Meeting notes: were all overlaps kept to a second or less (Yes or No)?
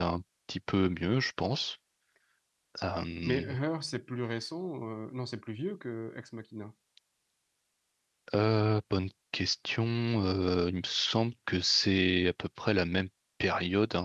Yes